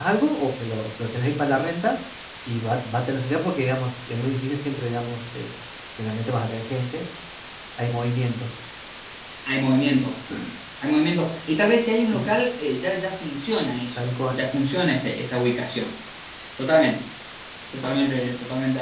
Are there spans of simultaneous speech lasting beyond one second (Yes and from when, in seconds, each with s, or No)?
No